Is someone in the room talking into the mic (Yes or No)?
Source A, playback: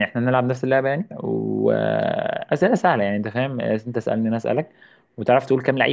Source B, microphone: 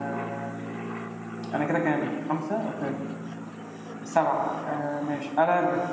Yes